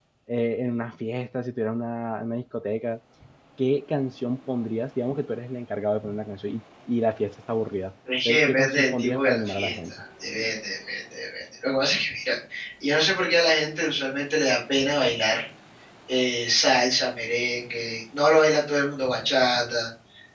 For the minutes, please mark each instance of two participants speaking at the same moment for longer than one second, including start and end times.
8.2-10.0

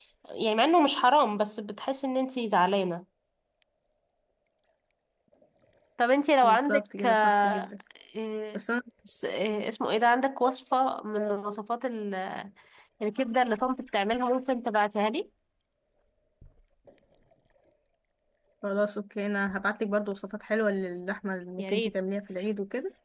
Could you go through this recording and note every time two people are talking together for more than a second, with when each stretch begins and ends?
6.4-7.7

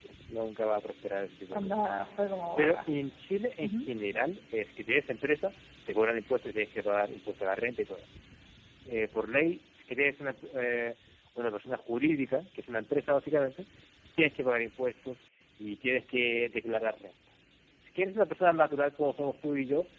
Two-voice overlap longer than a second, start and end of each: none

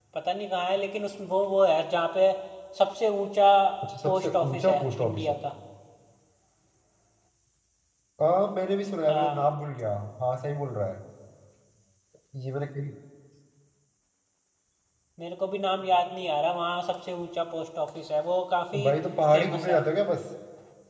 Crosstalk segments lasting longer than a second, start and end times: 4.0-5.3

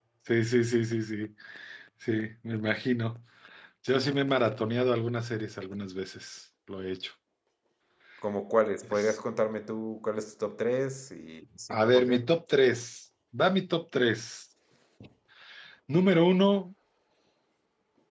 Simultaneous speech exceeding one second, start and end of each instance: none

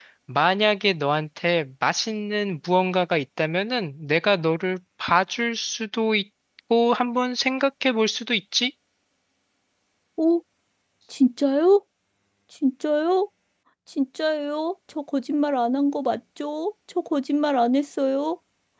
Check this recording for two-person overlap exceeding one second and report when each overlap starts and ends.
none

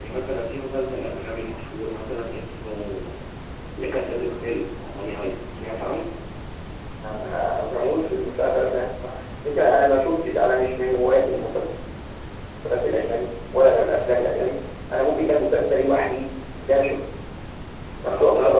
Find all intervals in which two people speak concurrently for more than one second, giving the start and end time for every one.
none

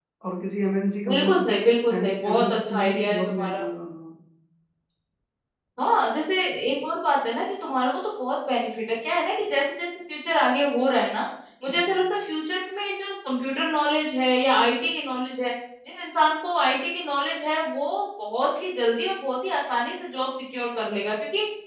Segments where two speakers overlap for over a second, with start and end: 2.0-3.6

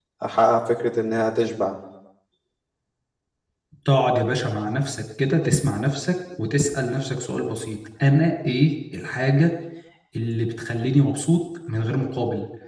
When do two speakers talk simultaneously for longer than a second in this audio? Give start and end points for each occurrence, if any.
none

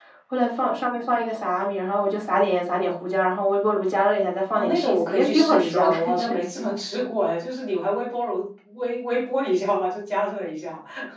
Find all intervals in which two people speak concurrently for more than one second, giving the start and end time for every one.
4.5-6.3

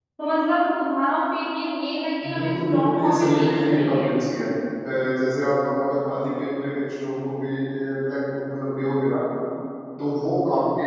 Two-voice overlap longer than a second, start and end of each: 2.3-4.1

